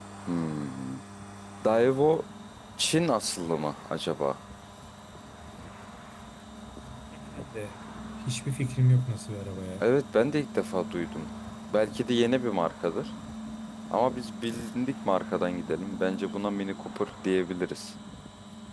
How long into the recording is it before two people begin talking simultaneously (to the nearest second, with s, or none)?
none